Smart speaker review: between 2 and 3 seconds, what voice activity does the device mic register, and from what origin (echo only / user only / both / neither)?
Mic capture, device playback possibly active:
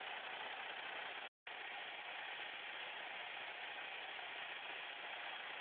neither